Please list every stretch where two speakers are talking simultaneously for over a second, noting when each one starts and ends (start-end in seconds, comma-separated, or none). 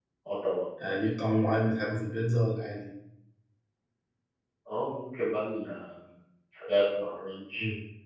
none